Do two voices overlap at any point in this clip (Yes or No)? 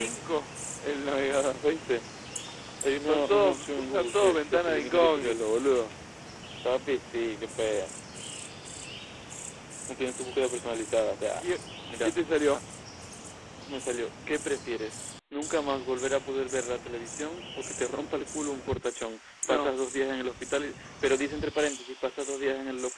Yes